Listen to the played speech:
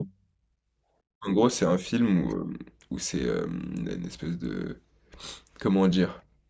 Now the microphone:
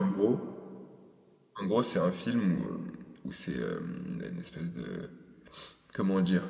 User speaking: No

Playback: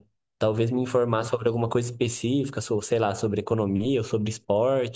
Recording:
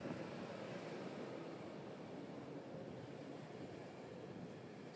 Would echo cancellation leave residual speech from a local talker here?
No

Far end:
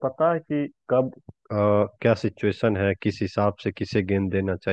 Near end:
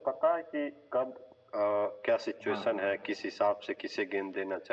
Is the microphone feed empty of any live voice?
No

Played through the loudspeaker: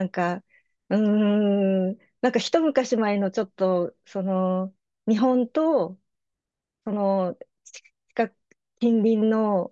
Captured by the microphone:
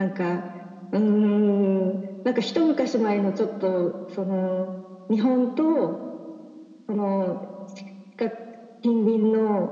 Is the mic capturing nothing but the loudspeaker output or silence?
Yes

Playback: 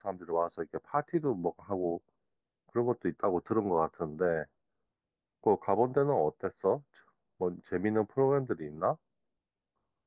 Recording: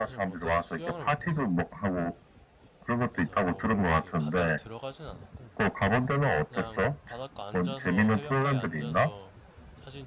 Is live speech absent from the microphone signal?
No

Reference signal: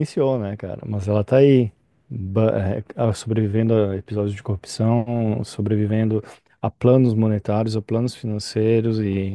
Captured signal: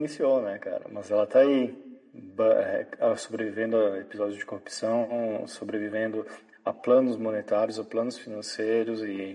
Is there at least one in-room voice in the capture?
No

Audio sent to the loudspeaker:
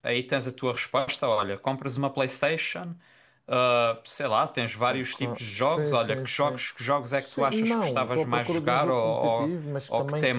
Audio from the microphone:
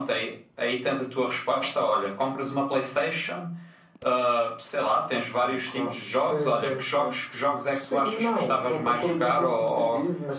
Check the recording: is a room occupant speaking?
No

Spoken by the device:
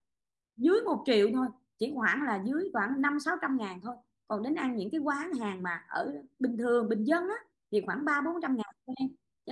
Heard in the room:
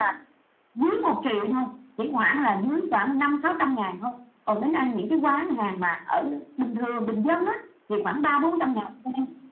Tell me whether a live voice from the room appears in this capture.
No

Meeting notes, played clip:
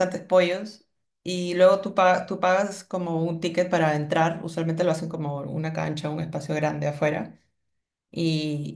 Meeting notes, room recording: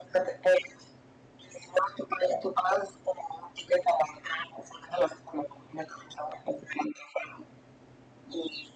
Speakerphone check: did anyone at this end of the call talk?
No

